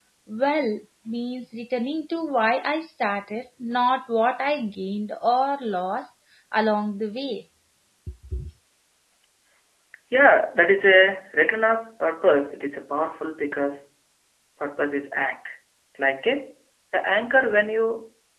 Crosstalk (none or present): none